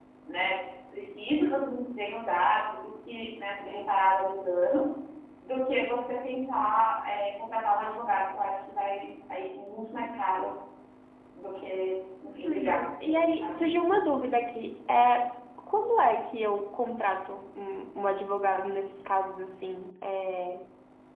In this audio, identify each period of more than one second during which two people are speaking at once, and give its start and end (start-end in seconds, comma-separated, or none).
12.4-13.6